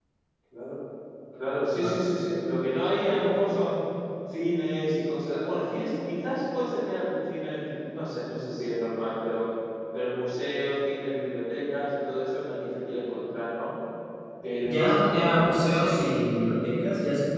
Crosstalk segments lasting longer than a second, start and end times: 14.7-16.0

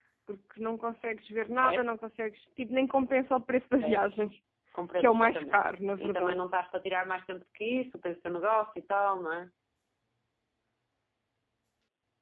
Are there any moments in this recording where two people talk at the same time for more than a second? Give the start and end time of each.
5.0-6.4

